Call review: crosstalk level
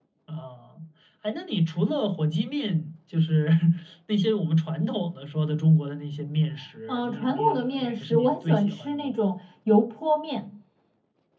present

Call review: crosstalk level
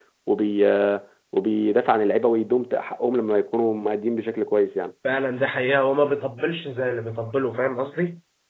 none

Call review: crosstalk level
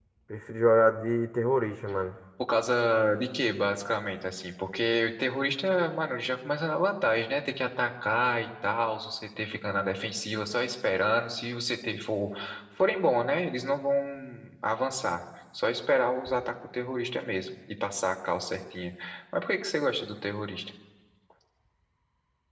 none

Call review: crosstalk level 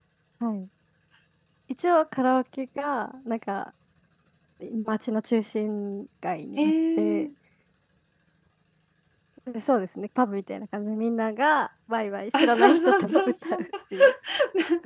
present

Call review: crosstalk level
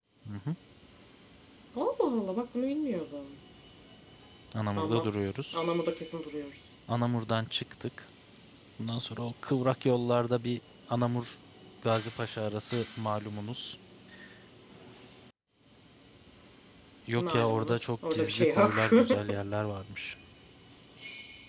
present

